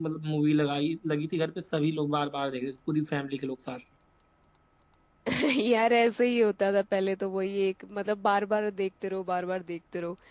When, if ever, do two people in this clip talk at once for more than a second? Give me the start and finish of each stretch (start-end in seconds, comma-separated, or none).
none